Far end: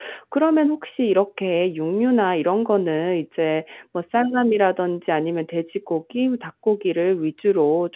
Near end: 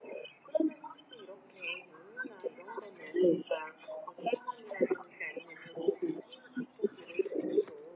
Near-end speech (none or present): none